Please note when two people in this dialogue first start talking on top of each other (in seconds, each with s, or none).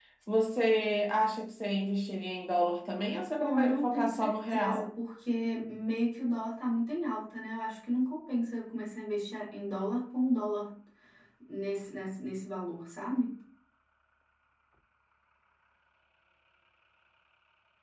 3.4 s